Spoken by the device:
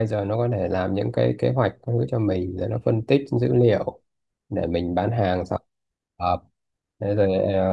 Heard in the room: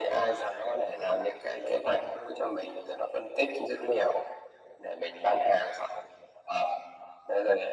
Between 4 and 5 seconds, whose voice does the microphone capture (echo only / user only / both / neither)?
echo only